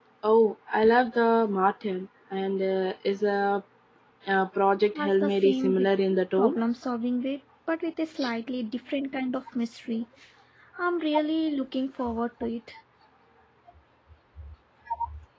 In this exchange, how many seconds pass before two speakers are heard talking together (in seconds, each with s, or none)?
5.0 s